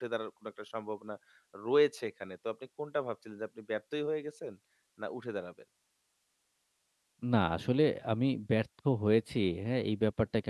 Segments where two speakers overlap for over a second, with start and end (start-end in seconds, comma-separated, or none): none